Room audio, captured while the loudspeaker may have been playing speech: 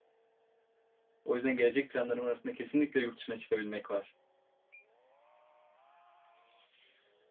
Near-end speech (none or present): present